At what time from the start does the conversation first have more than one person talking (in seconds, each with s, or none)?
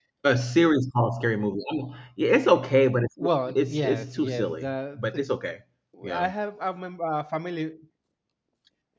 3.2 s